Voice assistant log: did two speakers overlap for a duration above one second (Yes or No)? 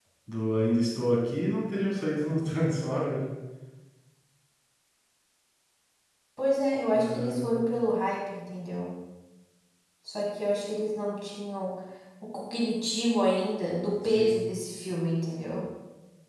No